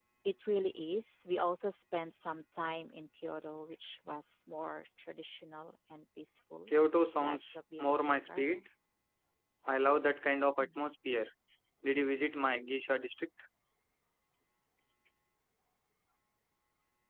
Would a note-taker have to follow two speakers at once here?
Yes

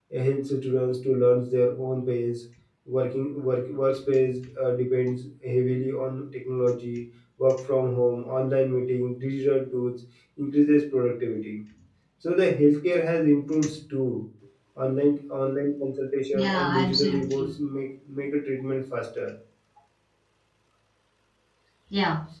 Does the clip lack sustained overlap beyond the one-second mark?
No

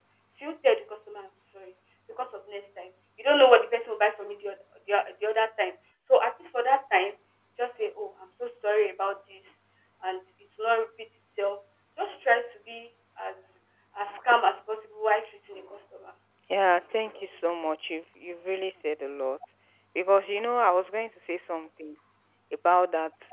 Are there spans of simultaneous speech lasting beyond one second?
No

